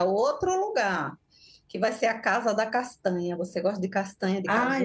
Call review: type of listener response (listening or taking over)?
taking over